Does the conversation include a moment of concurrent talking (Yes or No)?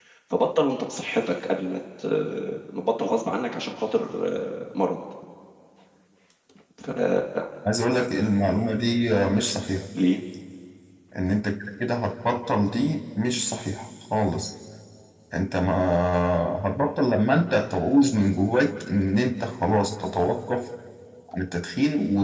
No